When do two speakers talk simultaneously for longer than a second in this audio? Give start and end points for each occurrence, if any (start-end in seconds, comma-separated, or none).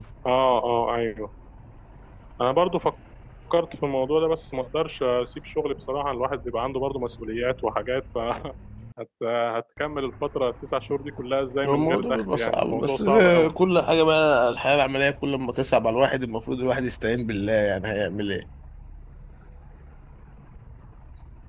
11.6-13.5